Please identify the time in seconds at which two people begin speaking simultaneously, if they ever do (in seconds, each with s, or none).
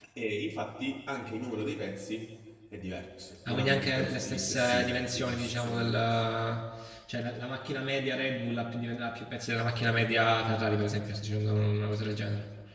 3.5 s